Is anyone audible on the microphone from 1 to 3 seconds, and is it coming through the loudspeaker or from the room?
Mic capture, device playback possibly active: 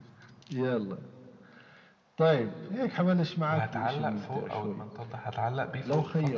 echo only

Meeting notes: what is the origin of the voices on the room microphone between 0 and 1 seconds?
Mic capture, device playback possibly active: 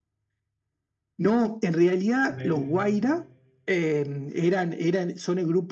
neither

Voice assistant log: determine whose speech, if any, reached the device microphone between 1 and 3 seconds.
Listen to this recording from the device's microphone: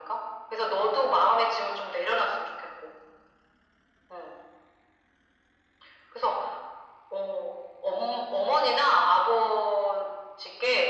echo only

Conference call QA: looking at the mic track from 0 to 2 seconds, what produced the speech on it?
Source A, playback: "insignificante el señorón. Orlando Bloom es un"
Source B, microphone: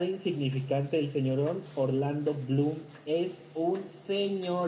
echo only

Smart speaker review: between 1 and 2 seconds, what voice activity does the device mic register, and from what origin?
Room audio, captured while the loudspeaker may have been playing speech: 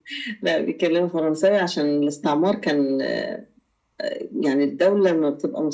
echo only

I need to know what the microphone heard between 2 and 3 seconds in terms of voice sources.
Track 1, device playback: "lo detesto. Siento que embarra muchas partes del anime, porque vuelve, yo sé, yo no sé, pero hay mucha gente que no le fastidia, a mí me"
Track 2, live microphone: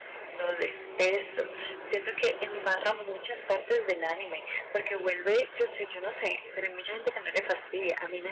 echo only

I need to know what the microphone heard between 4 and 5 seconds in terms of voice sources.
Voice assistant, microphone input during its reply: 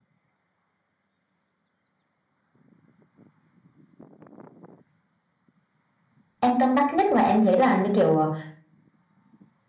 neither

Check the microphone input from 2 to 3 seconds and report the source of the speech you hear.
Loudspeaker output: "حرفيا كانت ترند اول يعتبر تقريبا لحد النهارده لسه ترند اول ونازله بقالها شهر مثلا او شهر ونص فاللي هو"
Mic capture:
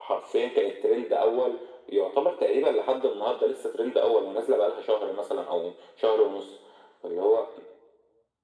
echo only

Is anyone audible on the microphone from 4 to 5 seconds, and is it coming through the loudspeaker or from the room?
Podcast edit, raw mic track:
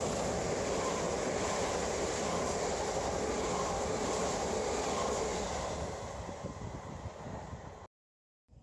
neither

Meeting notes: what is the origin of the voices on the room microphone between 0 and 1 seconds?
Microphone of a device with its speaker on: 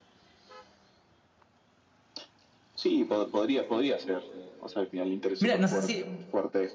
neither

